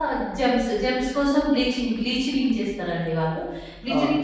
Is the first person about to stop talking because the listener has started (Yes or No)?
No